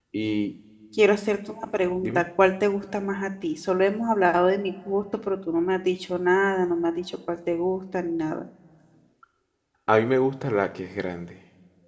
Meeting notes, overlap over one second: none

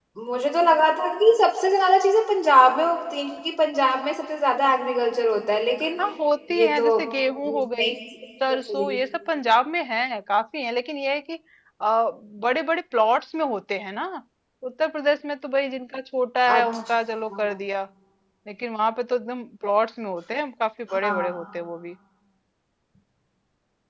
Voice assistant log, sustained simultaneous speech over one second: none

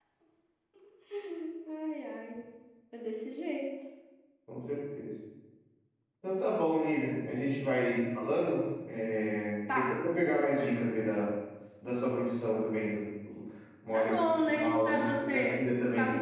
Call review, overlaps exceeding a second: present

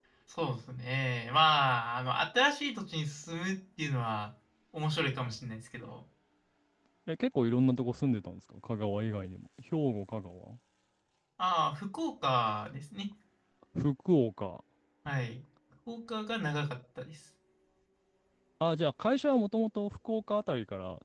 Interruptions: none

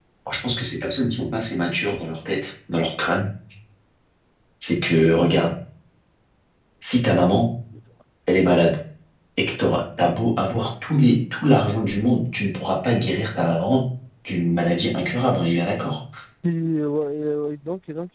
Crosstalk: none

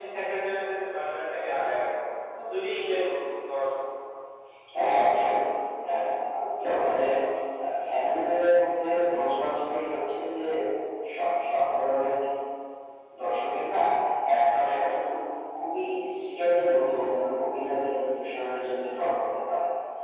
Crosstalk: none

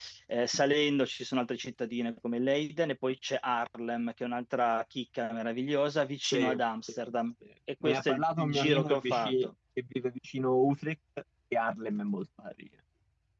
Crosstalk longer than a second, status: present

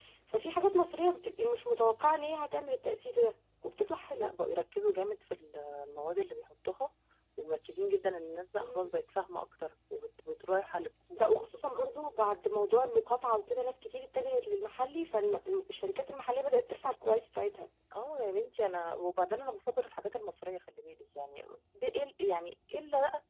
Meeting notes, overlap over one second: none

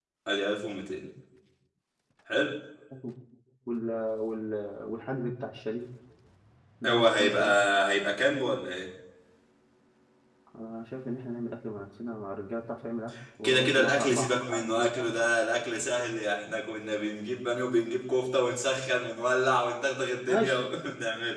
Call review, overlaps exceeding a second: present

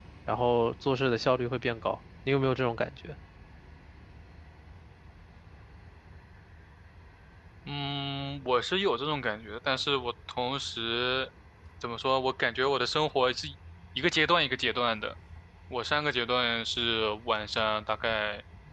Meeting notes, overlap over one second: none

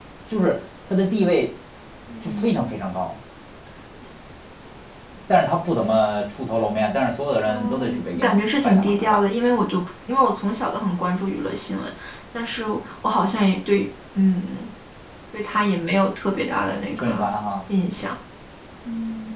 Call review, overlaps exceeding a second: present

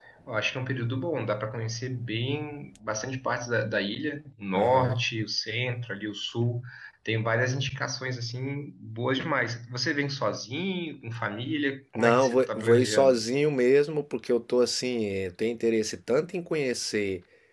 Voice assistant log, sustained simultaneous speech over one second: present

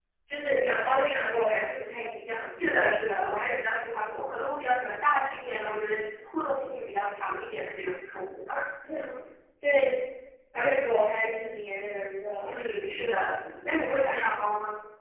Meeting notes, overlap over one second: none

